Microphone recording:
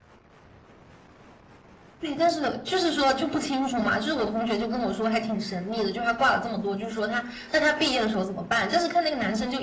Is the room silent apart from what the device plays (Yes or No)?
Yes